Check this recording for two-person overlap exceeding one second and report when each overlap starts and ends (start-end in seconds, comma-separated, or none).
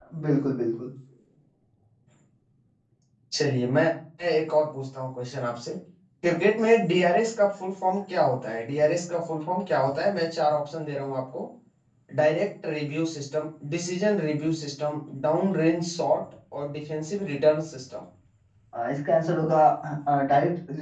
none